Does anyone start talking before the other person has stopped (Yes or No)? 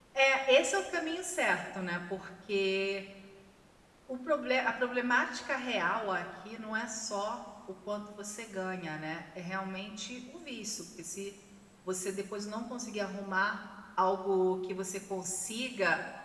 No